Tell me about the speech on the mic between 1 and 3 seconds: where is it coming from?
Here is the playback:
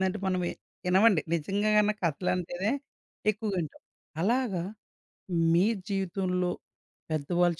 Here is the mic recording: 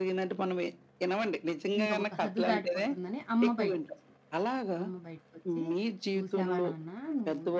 both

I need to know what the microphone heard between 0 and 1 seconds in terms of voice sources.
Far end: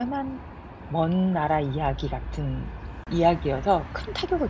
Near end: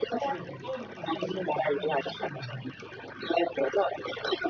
both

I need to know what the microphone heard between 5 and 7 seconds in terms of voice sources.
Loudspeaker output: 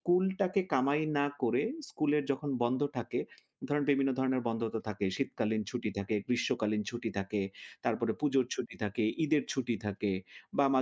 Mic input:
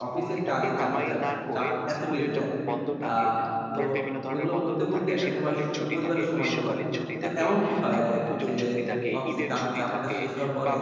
both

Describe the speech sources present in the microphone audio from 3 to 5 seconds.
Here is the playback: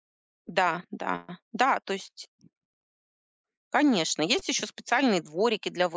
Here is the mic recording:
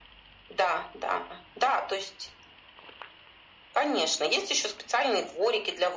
echo only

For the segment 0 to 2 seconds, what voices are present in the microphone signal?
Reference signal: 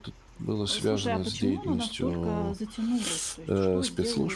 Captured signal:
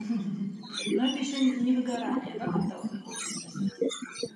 both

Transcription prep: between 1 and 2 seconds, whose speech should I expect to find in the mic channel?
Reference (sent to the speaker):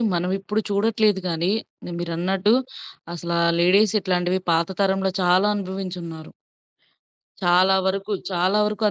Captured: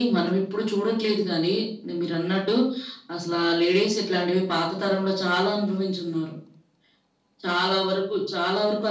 echo only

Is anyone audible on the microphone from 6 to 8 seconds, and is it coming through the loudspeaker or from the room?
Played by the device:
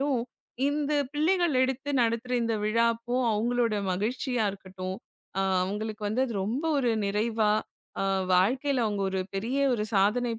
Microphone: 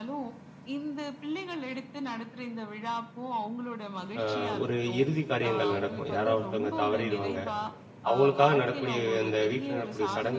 both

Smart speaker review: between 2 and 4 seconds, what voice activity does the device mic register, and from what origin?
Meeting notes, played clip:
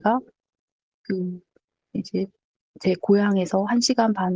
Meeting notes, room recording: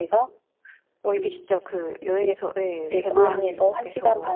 both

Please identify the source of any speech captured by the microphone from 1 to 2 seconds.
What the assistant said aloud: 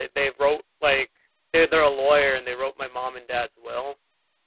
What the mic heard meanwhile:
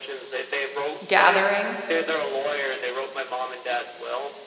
both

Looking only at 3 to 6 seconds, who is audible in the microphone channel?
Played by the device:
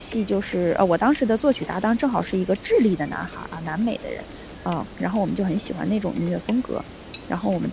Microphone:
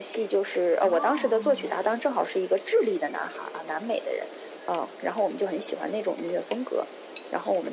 echo only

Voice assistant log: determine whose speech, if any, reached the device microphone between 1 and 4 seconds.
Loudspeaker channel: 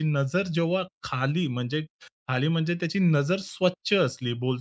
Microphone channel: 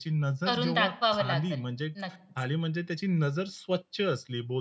both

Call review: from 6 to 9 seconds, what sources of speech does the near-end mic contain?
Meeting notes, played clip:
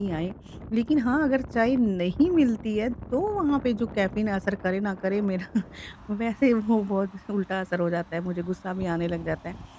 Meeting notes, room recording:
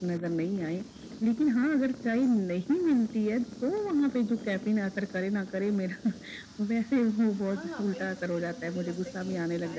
both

